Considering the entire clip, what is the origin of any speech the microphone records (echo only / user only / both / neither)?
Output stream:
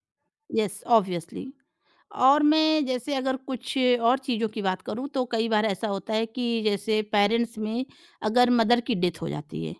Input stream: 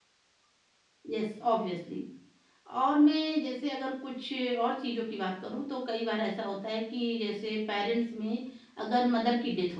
echo only